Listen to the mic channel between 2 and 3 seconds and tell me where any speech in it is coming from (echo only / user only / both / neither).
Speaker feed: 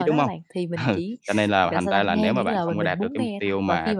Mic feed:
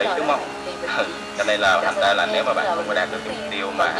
echo only